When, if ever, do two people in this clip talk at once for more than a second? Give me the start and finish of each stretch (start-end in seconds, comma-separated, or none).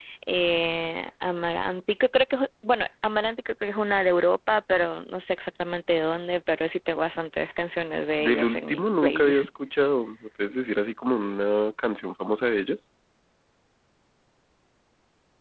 8.2-9.5